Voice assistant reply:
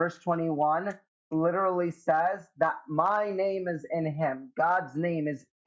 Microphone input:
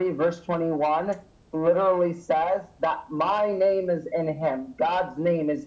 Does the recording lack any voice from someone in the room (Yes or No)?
Yes